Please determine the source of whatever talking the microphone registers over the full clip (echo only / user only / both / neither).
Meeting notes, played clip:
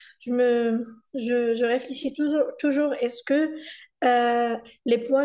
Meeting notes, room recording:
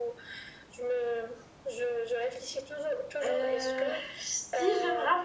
both